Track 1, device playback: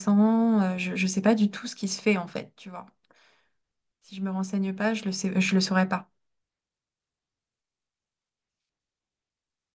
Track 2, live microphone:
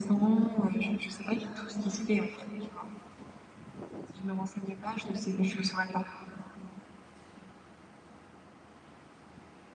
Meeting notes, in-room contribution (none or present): none